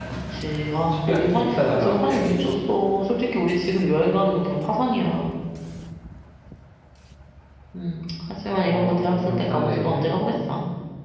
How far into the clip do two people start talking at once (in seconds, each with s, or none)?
1.1 s